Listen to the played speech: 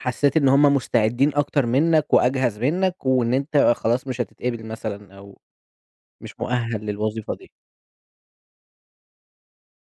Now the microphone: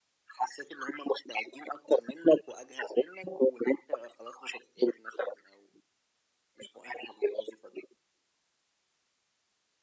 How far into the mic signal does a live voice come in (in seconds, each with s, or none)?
none